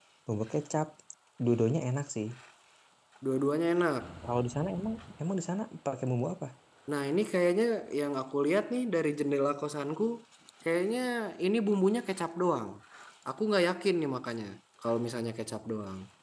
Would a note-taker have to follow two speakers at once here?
No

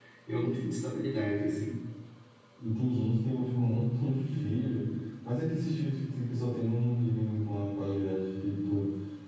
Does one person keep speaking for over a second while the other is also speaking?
No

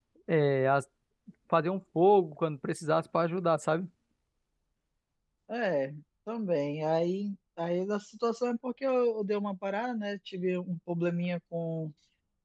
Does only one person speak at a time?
Yes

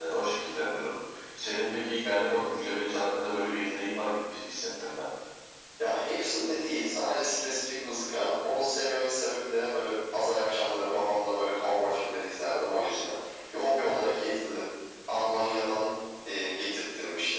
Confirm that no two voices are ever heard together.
Yes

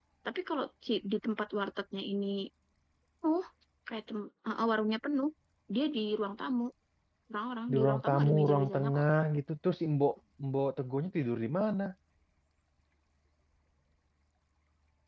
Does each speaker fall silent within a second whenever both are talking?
No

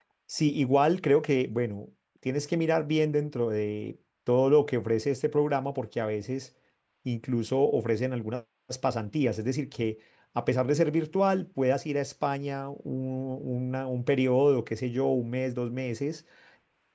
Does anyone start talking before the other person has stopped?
No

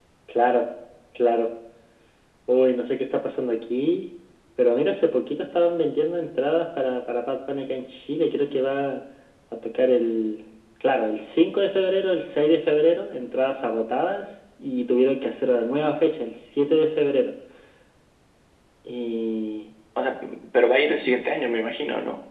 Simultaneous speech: No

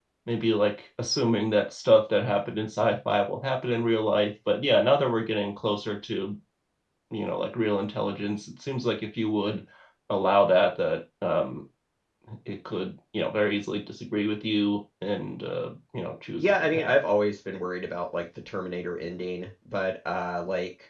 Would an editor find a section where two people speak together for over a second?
No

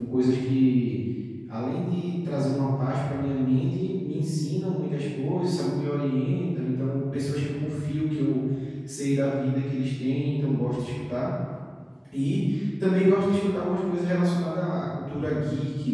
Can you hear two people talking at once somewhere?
No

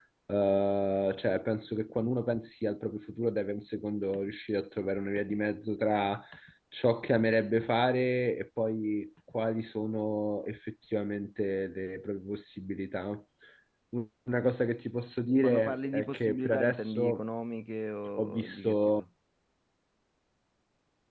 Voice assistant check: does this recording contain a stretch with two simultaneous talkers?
Yes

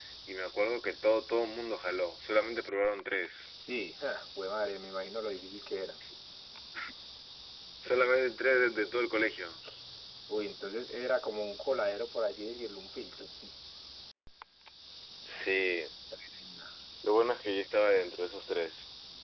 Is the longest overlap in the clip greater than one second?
No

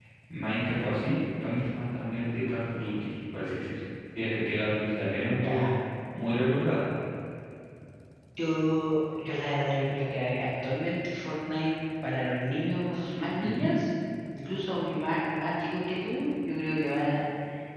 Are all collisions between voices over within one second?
Yes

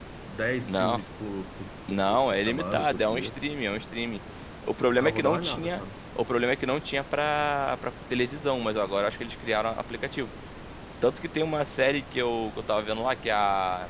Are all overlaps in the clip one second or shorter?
No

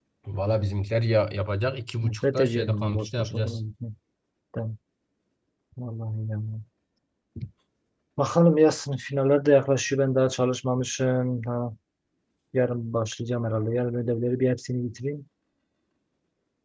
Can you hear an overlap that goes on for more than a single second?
Yes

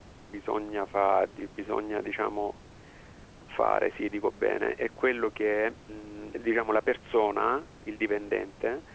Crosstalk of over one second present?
No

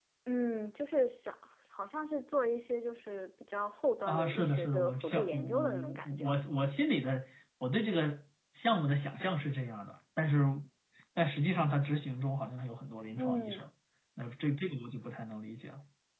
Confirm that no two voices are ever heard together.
No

